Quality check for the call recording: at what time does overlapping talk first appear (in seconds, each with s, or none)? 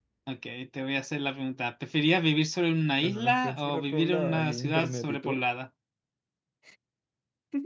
3.0 s